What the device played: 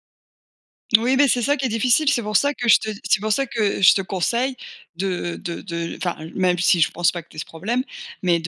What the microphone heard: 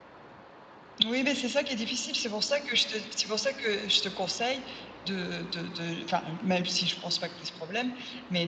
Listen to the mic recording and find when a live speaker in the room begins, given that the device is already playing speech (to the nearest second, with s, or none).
none